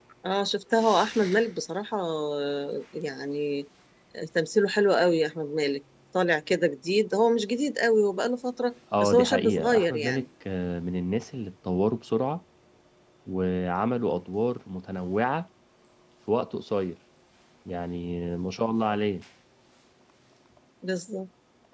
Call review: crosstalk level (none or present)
present